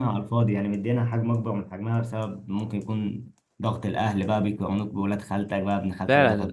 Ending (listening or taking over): taking over